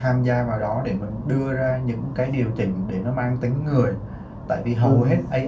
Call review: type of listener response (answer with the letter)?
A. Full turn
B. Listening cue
B